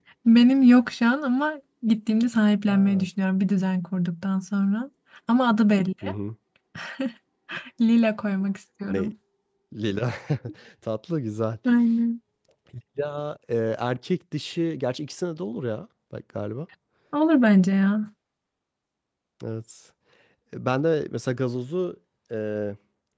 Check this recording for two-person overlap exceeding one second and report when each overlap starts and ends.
none

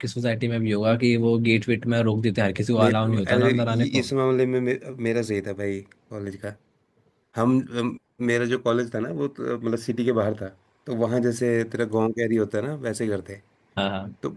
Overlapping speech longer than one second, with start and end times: 2.8-4.1

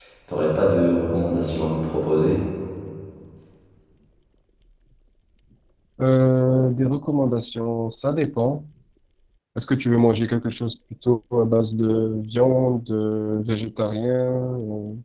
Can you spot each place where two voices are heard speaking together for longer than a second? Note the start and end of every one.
none

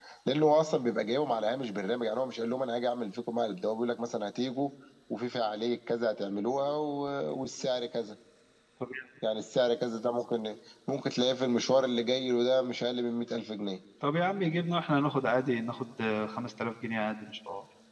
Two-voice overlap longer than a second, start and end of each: none

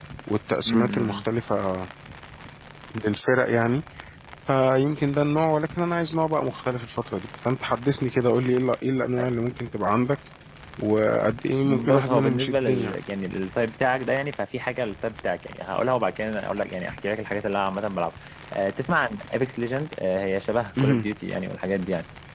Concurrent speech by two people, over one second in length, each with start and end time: 11.6-13.0

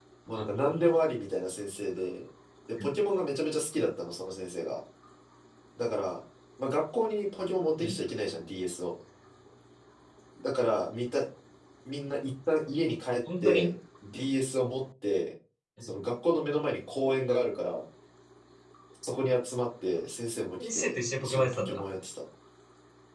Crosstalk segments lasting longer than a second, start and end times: 20.6-21.8

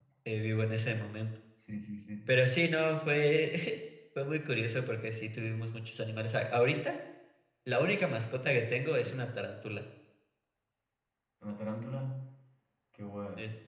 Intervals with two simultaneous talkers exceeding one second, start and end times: none

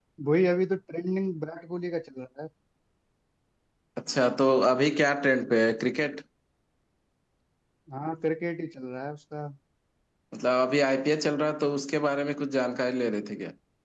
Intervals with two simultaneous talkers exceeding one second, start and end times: none

